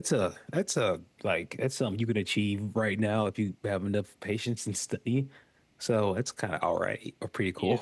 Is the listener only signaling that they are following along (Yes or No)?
No